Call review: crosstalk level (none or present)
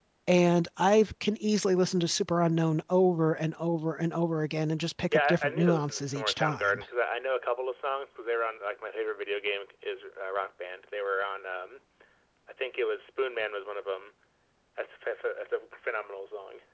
present